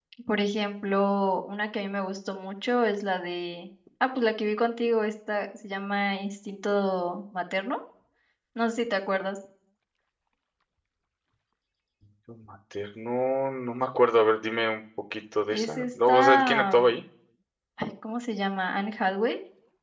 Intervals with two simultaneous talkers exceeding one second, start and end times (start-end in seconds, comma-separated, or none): 15.5-17.0